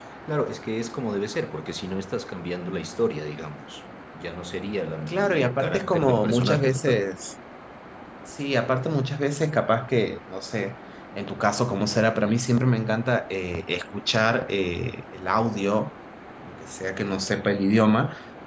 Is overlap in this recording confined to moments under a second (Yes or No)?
No